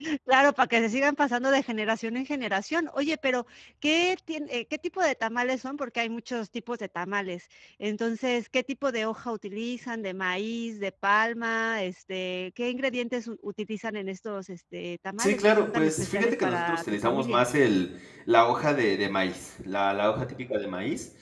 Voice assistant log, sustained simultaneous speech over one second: present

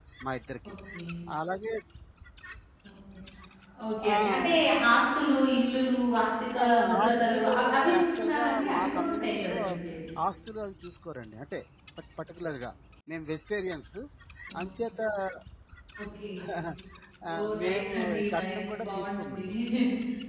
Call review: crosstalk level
present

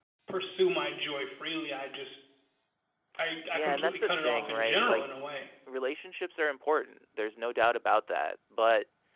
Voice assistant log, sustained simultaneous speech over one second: present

